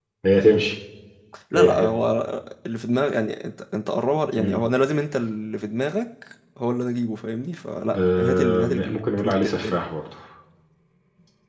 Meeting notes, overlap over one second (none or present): present